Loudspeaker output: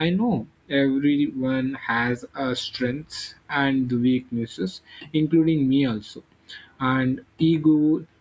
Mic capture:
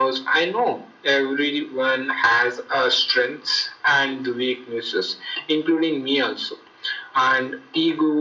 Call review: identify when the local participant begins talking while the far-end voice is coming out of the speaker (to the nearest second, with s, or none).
none